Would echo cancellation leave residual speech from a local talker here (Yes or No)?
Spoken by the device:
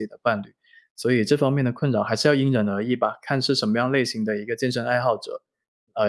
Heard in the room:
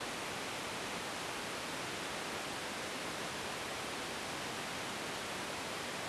No